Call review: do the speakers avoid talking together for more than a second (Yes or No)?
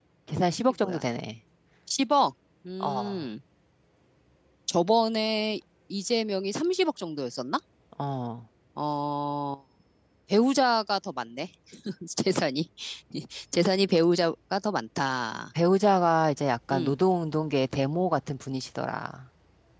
Yes